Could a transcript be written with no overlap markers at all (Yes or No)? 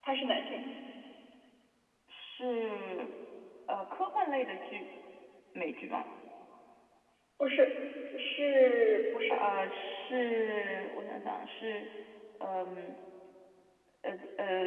Yes